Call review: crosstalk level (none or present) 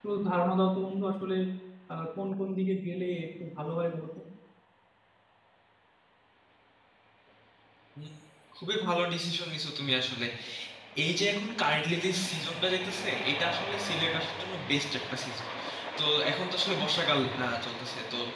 none